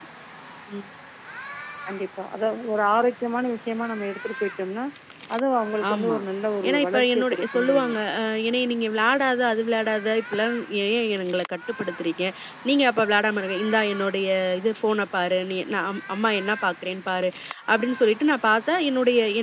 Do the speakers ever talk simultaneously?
Yes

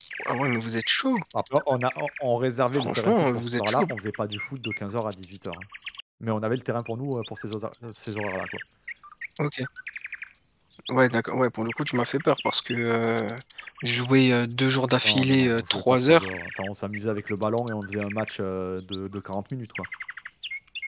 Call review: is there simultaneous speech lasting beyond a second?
Yes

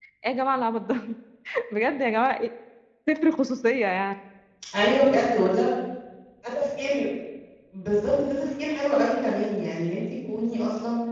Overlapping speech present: No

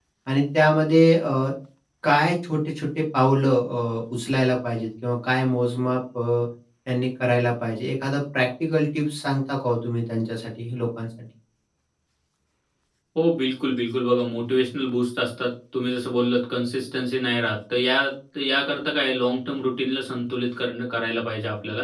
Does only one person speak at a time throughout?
Yes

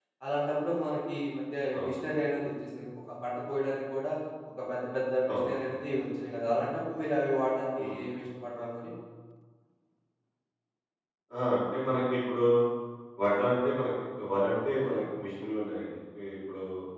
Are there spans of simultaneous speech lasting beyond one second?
No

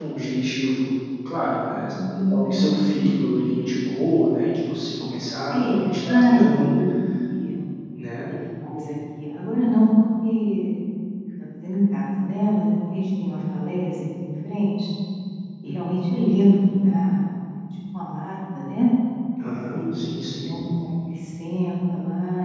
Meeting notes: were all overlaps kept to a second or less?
No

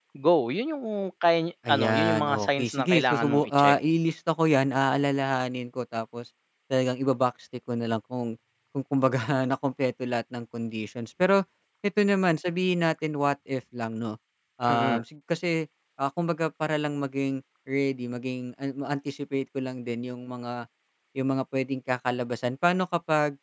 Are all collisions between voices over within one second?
No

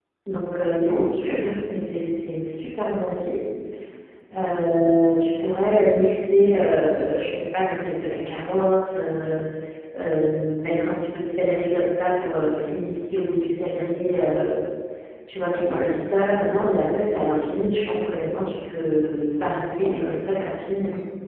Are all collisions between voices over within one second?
Yes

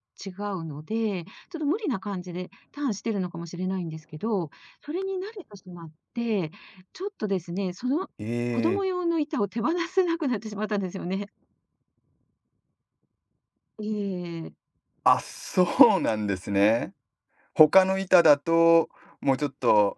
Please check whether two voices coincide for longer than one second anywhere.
No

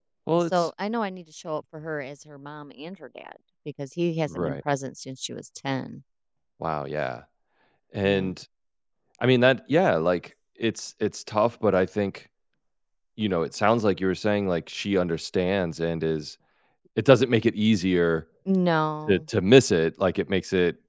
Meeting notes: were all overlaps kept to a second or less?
Yes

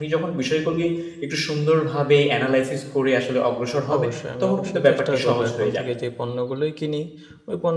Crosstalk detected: Yes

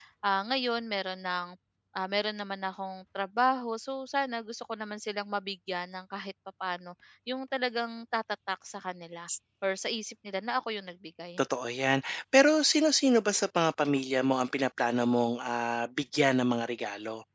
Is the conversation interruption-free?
Yes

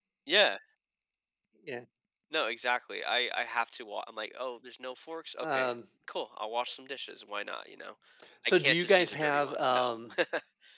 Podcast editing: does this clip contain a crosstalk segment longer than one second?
Yes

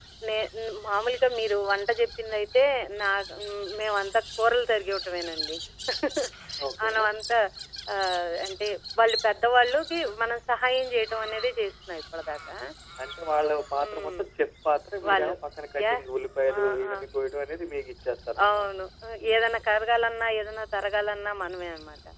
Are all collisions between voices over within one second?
Yes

